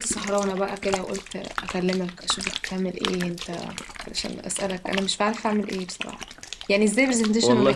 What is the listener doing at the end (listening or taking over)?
listening